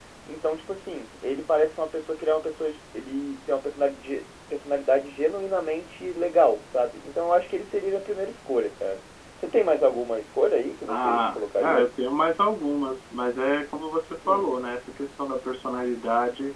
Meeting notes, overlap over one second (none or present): none